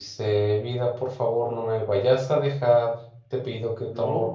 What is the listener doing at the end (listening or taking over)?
listening